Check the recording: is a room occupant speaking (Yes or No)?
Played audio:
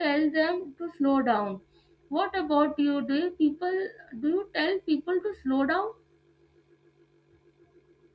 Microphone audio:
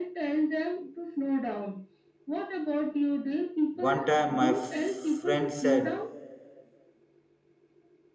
Yes